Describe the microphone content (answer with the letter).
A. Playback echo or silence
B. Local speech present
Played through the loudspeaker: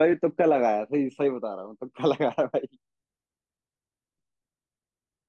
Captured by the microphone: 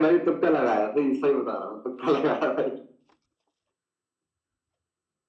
A